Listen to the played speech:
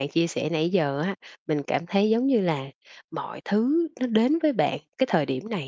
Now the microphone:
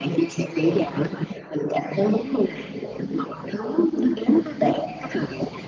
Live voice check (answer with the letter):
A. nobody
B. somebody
A